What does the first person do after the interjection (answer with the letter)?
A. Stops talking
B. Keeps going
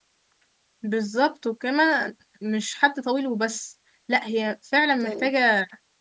B